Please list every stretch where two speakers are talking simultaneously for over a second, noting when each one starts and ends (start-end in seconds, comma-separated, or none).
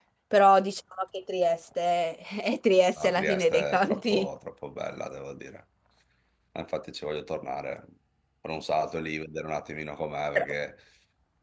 3.0-4.3